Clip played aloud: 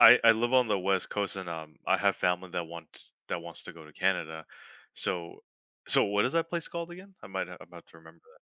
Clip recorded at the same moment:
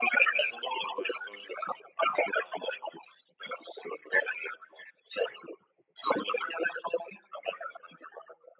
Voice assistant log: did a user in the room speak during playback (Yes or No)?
No